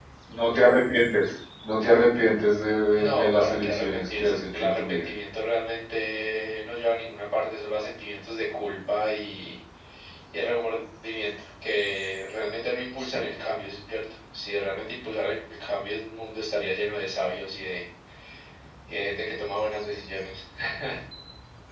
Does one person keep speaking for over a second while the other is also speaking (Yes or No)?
Yes